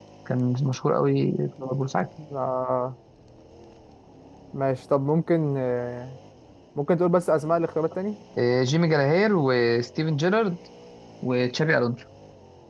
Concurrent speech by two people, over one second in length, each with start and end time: none

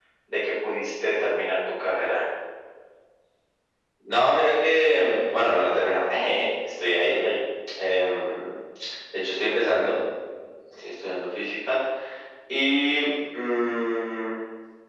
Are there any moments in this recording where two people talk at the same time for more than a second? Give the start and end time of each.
none

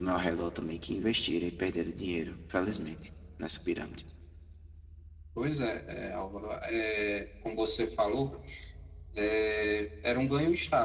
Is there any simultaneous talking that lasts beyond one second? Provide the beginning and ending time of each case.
none

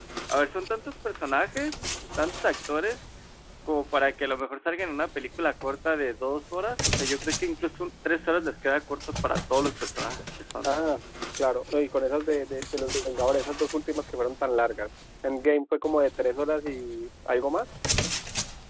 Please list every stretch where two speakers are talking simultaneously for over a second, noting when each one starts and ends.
none

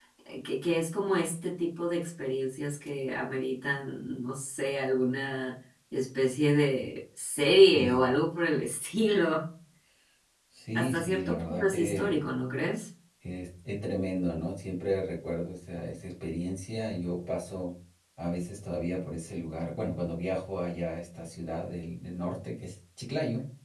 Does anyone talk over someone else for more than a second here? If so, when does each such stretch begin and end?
10.8-12.2

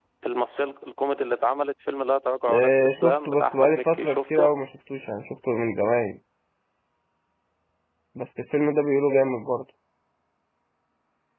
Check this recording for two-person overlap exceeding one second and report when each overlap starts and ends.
2.5-4.5

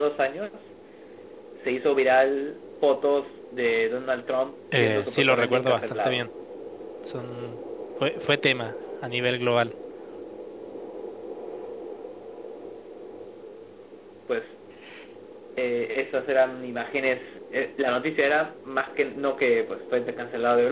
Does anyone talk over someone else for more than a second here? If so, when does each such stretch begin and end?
4.7-6.2

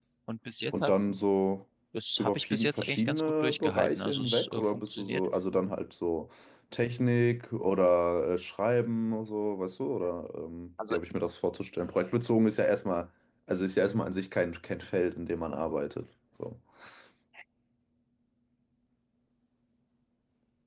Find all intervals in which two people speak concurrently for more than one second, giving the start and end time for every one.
2.2-5.2

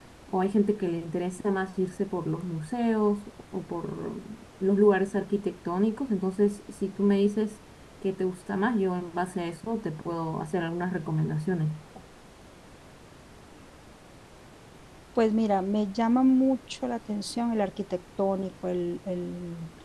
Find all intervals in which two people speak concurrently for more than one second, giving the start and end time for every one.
none

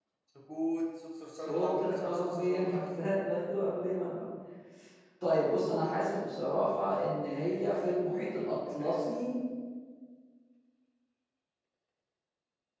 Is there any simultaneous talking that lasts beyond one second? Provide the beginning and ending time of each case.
1.4-2.8

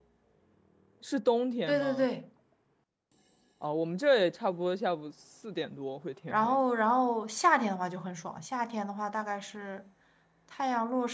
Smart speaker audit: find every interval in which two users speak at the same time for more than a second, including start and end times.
none

